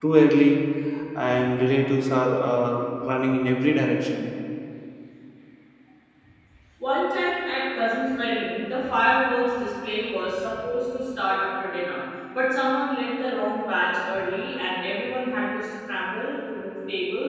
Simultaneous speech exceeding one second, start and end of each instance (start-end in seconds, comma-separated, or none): none